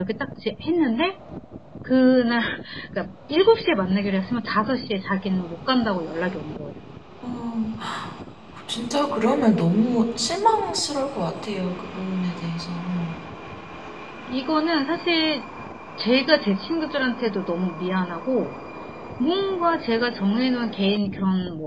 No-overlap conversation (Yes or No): Yes